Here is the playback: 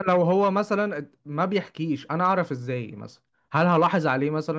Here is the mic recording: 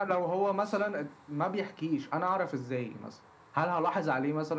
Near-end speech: none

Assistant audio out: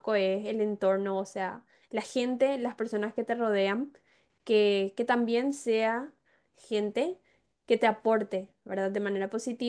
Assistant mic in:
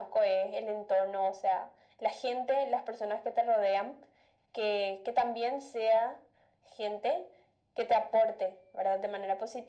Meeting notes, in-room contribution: none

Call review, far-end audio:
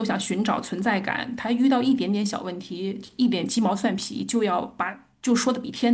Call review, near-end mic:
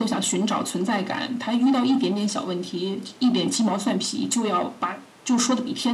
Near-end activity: none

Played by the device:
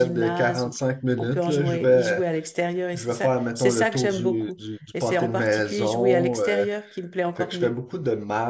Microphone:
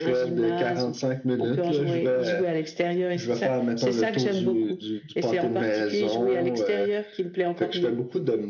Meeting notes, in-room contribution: none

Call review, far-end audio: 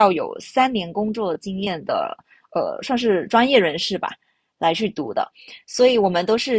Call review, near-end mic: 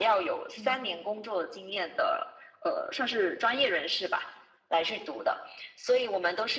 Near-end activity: present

